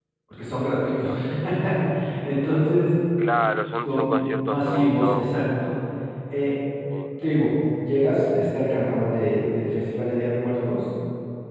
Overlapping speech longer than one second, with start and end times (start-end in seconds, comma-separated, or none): 3.9-5.5